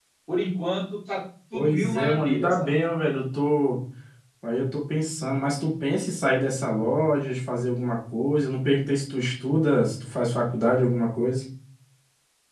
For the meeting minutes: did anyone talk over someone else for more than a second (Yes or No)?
Yes